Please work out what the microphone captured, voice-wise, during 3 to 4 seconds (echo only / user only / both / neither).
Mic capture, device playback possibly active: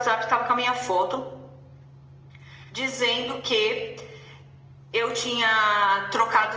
echo only